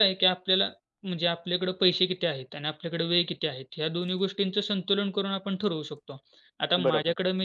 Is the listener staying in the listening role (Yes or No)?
Yes